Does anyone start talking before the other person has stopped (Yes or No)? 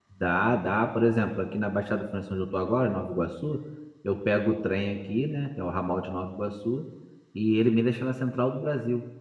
No